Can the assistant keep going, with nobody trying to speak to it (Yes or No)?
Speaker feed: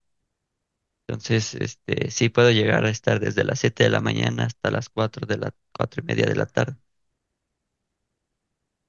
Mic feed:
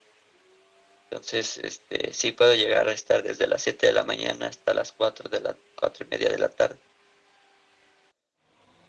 Yes